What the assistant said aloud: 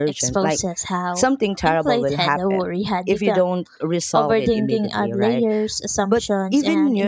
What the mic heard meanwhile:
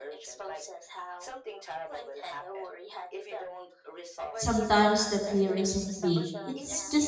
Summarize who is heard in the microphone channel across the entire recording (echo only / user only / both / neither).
both